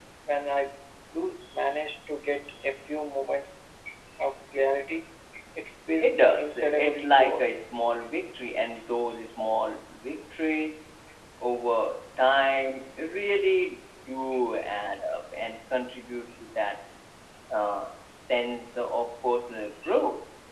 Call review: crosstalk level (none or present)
present